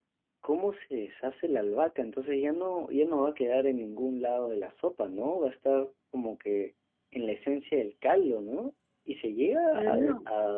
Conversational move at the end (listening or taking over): listening